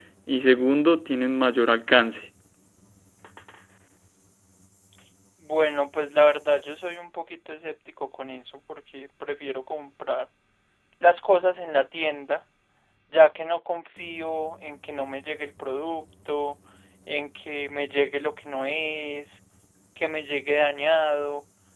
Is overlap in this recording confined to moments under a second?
Yes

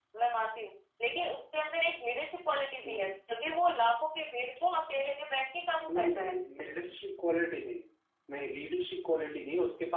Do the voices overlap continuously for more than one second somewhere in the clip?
No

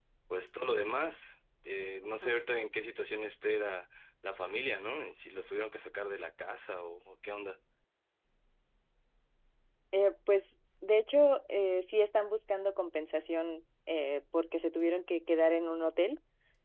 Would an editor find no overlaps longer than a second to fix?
Yes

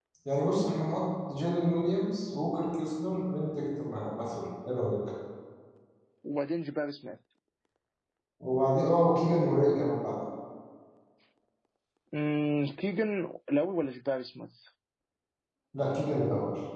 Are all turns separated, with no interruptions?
Yes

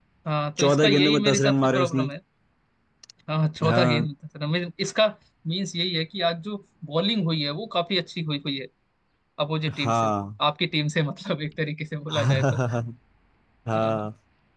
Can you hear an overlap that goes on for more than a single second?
Yes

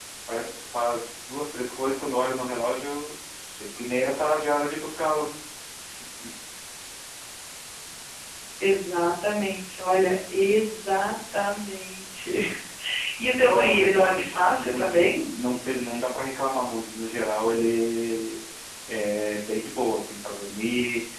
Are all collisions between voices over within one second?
No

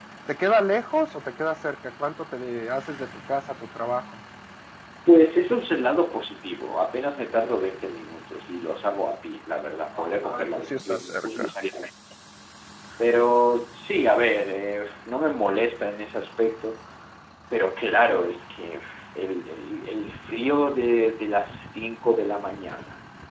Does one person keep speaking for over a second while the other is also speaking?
Yes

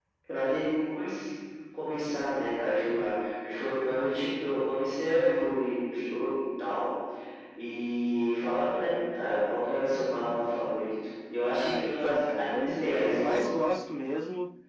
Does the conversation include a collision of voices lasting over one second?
Yes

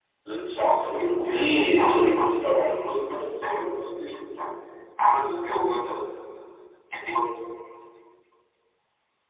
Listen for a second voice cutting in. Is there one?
Yes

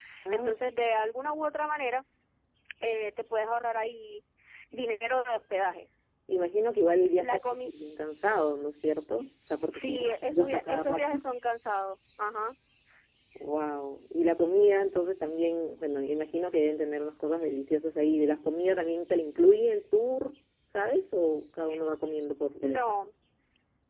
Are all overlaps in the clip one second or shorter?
No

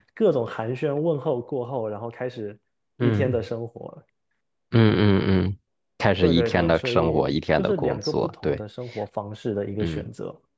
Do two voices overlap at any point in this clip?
Yes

